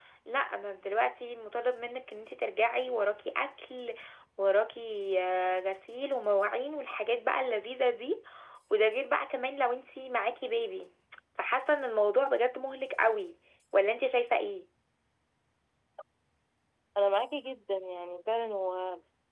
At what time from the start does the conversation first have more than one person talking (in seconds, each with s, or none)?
none